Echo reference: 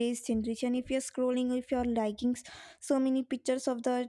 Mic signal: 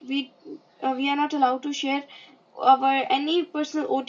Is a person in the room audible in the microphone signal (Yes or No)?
Yes